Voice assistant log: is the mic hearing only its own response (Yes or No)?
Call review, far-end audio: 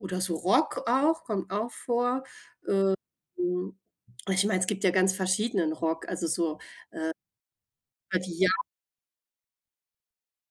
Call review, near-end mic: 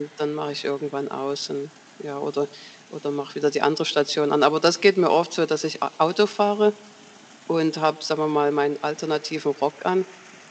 No